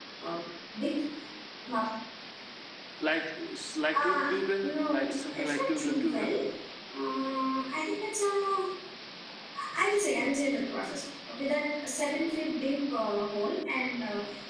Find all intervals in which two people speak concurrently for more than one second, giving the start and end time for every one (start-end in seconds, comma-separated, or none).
4.6-6.3